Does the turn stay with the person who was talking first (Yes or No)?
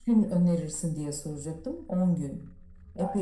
No